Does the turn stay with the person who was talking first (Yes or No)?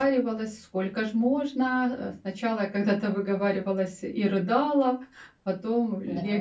Yes